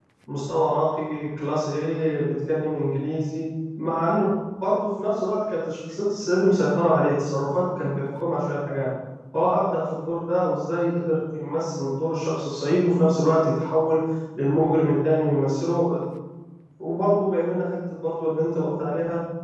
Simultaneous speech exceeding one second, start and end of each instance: none

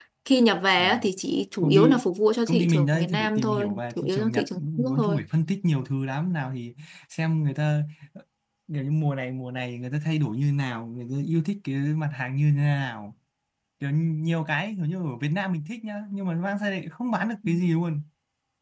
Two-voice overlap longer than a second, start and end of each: 2.5-5.2

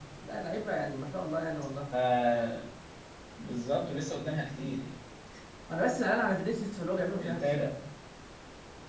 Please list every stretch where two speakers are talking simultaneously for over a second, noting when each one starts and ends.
none

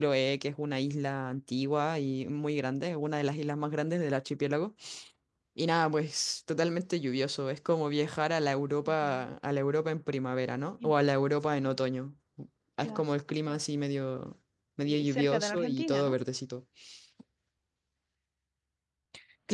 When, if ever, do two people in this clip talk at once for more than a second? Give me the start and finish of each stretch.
14.8-16.2

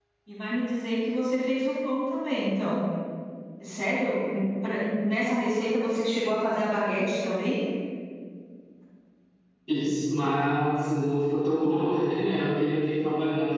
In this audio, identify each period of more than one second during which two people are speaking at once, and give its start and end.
none

